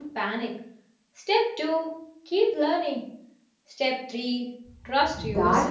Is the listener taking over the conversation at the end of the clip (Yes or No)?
Yes